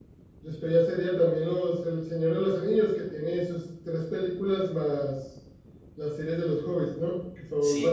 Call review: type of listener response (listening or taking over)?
taking over